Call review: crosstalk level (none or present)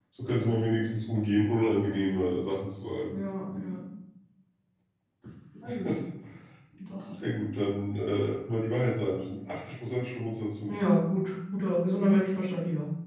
none